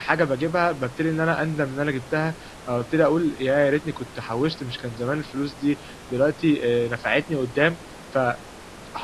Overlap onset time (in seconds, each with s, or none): none